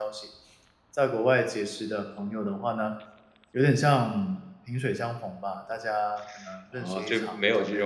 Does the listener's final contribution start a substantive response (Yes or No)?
Yes